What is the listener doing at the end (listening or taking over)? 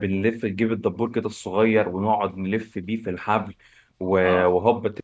listening